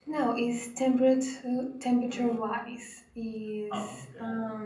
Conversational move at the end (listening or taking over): listening